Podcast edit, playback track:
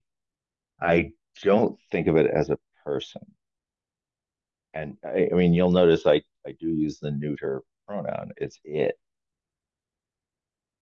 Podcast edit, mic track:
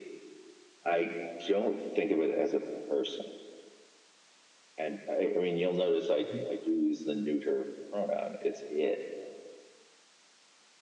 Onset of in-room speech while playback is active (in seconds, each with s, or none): 6.2 s